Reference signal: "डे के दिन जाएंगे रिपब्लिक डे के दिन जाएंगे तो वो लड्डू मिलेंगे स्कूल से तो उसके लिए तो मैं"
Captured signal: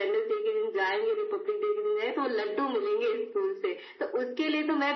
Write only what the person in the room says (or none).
none